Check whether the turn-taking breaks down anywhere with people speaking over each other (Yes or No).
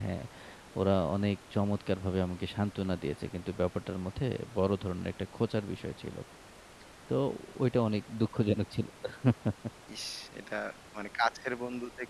No